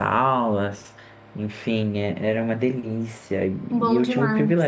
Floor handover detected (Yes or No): No